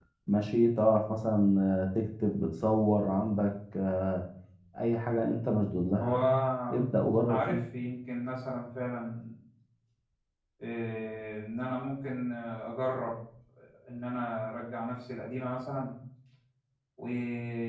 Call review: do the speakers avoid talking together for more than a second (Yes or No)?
Yes